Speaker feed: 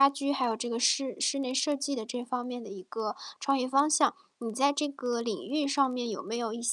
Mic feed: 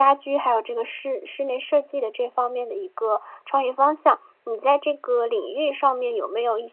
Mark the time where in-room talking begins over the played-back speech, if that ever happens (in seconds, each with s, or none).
none